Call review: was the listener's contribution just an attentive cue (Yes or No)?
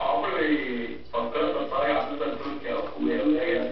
No